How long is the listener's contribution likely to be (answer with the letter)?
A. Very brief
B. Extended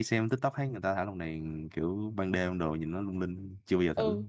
B